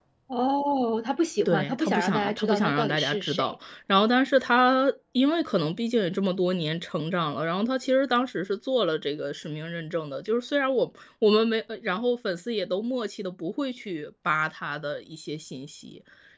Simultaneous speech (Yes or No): Yes